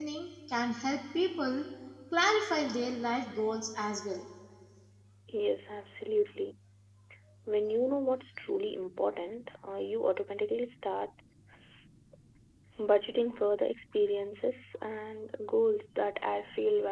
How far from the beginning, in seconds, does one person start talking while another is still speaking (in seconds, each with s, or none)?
none